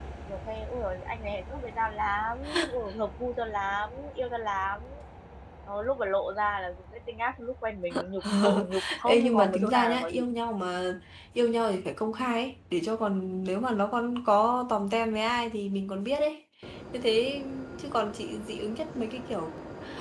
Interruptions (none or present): present